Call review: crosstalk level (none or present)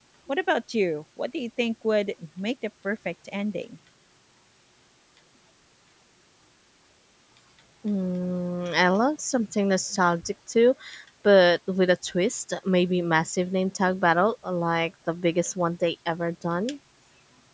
none